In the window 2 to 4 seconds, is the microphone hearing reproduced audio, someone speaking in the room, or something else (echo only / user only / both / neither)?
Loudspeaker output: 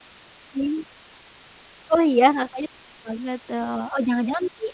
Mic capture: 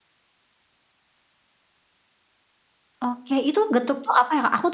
user only